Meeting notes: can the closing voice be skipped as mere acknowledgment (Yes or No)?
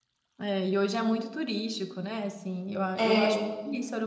Yes